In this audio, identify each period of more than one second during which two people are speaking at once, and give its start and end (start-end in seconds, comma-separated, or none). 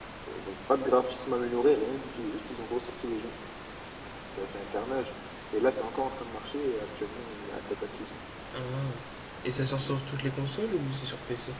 none